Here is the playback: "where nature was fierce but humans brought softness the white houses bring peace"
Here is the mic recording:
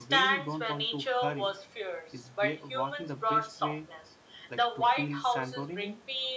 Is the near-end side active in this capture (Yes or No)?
Yes